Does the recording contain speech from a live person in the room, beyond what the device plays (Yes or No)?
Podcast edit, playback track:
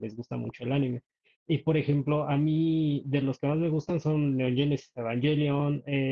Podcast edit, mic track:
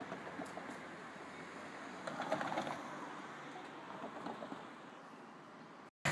No